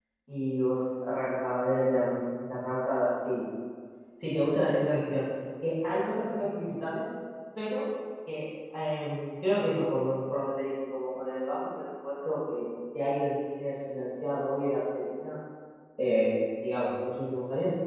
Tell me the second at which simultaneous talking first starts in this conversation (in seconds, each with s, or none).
none